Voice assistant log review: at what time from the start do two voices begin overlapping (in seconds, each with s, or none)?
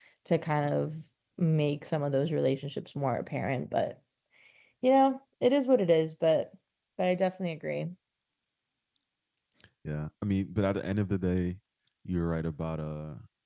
none